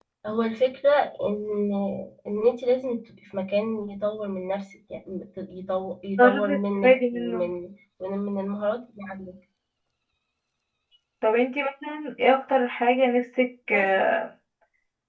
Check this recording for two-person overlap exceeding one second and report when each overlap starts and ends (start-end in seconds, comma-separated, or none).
6.2-7.5